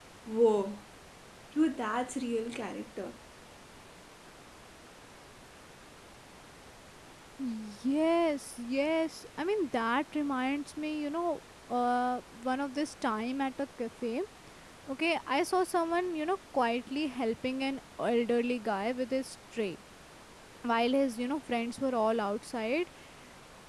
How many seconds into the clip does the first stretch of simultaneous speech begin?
none

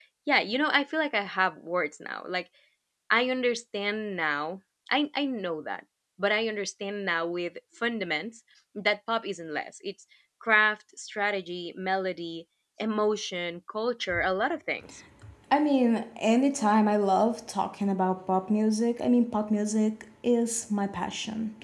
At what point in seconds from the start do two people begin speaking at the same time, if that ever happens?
none

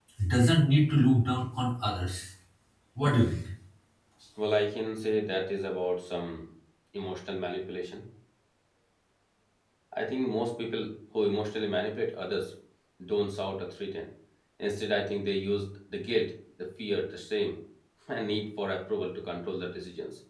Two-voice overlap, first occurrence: none

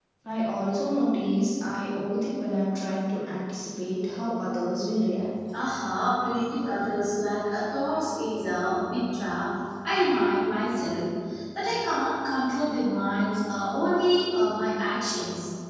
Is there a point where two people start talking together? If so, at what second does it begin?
none

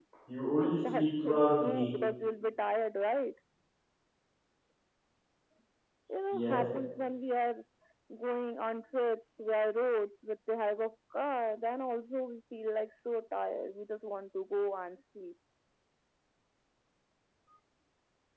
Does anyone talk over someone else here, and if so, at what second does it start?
0.6 s

